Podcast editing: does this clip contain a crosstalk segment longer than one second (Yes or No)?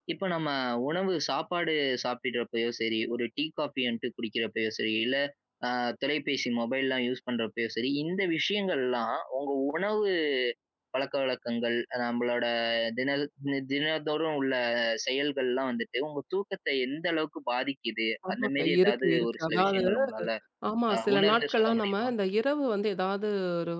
Yes